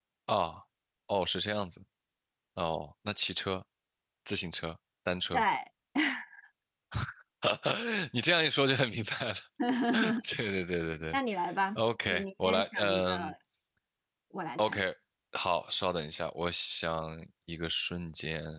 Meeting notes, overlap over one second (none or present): present